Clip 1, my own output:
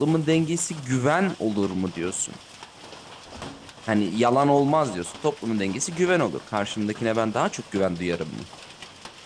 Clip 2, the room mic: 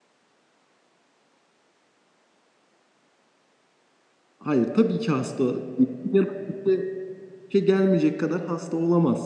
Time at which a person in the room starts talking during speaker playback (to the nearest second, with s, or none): 4 s